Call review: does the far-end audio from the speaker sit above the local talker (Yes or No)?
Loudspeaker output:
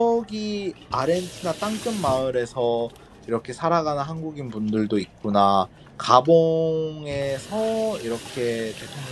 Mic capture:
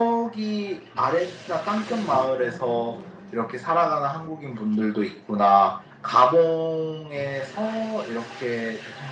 Yes